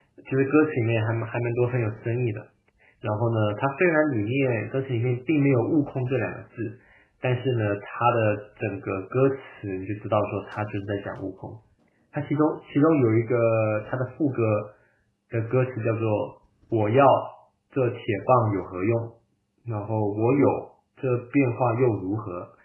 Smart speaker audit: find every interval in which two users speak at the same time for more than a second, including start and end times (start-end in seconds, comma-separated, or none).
none